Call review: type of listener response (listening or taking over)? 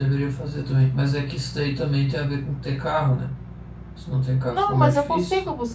taking over